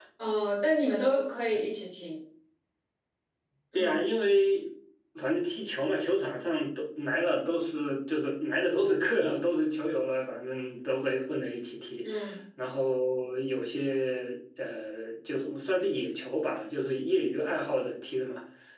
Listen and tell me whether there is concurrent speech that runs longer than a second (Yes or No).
No